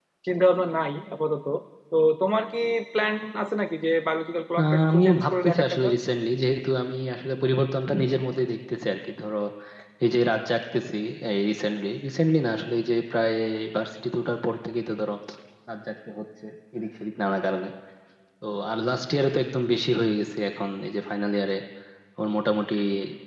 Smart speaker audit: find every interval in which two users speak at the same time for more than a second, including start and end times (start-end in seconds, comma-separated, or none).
4.6-5.9